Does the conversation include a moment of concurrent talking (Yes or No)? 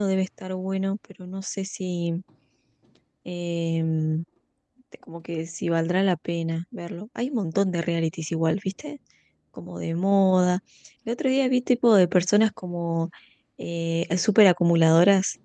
No